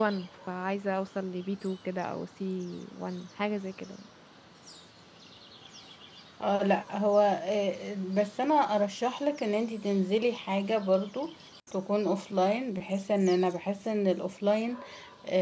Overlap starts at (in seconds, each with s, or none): none